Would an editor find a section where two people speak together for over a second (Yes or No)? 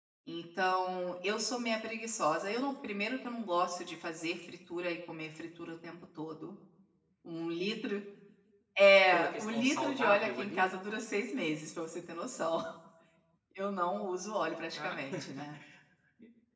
Yes